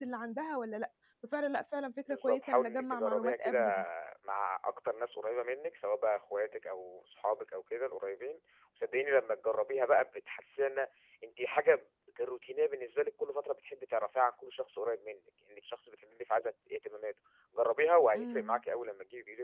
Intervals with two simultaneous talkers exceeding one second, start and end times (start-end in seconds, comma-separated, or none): 2.1-3.6